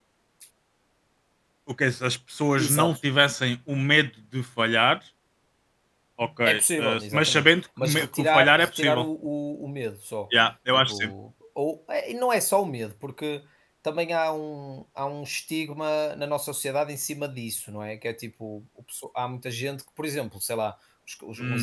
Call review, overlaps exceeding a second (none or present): present